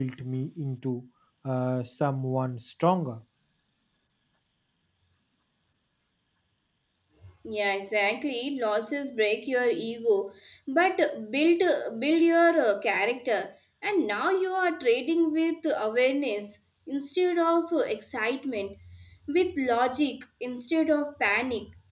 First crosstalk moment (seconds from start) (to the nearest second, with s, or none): none